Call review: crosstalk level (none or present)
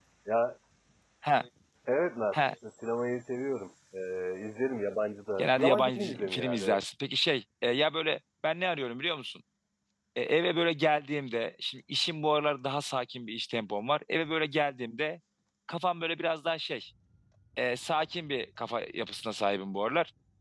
present